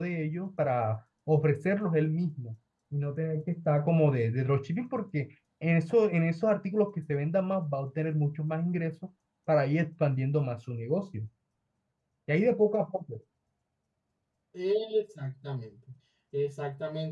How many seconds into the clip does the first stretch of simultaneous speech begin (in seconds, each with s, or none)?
none